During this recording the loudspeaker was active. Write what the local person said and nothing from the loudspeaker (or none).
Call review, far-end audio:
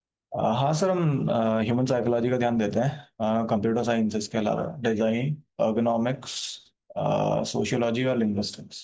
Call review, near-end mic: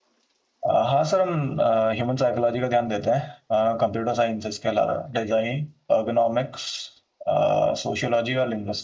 none